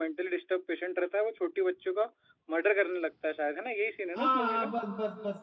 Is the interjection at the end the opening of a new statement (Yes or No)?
Yes